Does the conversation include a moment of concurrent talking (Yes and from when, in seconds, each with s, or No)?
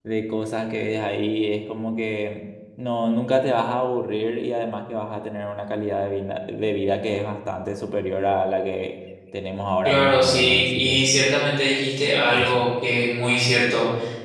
Yes, from 9.8 s